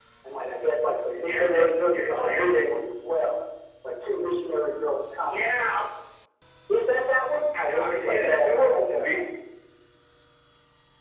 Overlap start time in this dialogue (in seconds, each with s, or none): 1.2 s